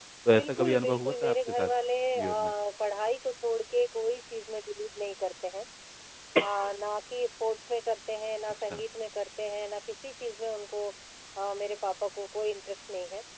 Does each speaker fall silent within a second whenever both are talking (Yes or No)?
No